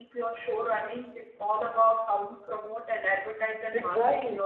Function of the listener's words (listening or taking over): taking over